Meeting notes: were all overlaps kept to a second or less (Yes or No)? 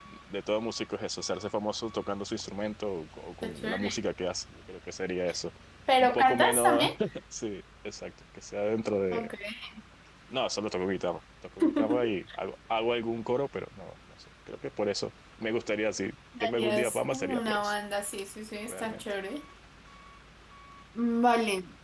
No